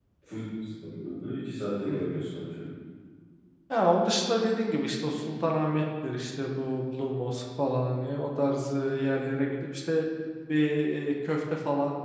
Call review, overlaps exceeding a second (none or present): none